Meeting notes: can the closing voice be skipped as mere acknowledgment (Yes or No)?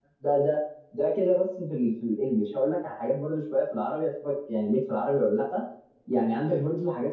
Yes